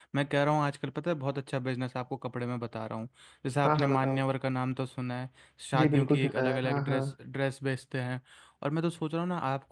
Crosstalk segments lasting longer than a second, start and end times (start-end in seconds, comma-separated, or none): 5.8-7.0